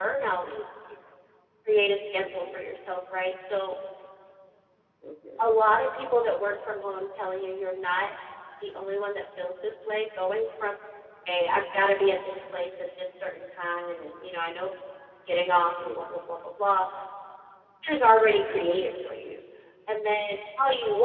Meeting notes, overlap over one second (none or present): none